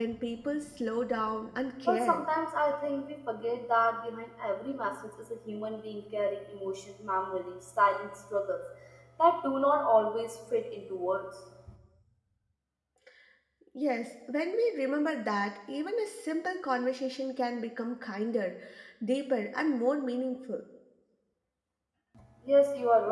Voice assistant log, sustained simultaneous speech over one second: none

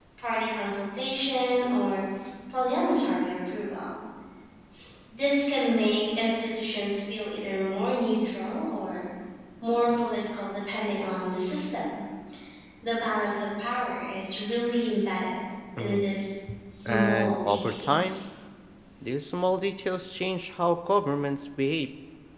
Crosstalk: present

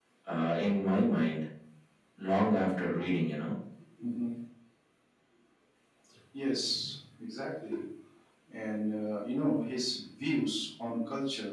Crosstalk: none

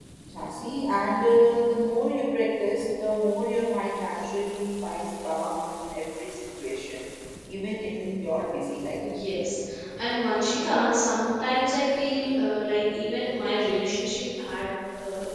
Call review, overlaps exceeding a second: none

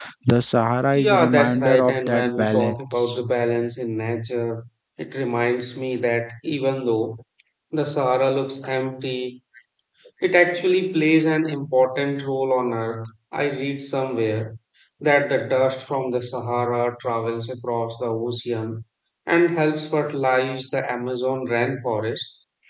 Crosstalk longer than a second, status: present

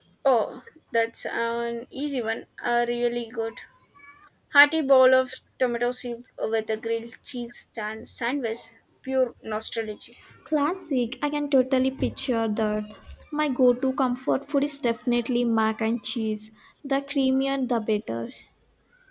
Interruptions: none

